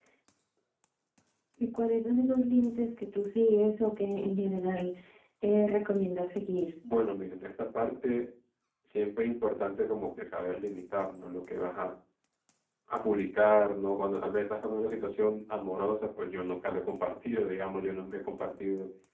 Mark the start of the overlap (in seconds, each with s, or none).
none